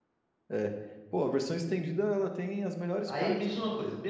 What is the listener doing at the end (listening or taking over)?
taking over